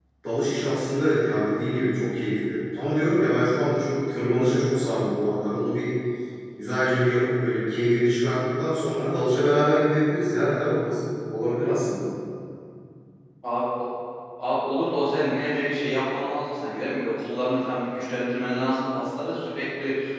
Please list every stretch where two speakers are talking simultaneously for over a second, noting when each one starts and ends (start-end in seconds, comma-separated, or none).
none